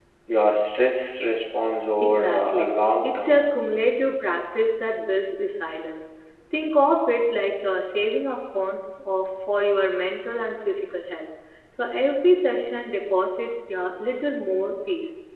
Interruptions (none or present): present